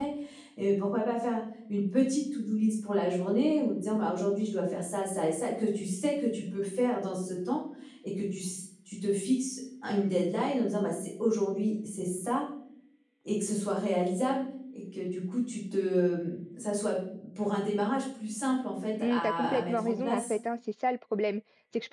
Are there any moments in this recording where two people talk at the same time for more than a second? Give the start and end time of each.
19.0-20.3

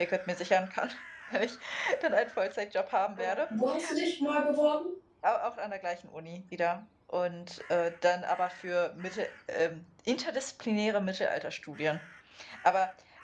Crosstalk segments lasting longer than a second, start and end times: none

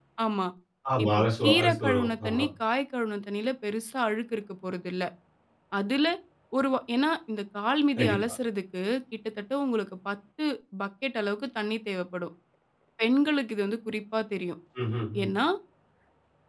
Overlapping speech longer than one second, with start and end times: 1.0-2.4

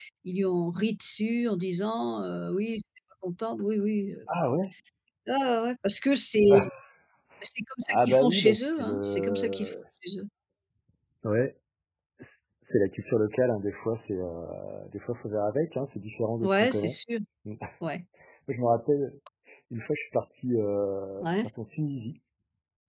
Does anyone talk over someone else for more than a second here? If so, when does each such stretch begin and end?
7.9-9.7

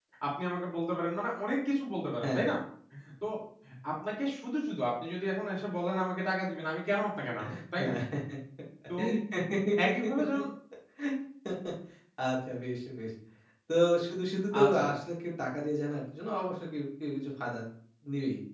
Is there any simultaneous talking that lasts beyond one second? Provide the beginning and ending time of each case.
none

